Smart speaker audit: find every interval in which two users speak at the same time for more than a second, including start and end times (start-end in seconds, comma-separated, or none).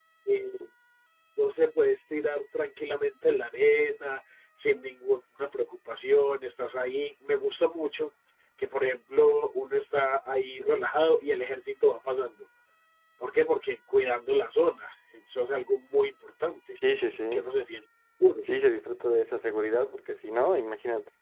none